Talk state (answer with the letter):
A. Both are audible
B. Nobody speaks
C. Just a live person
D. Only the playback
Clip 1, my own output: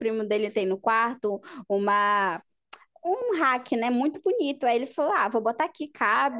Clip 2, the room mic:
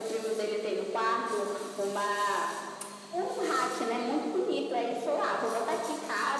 D